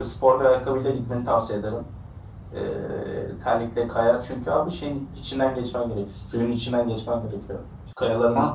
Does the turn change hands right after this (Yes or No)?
No